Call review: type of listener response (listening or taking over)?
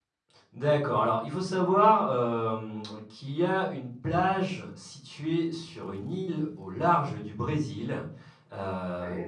listening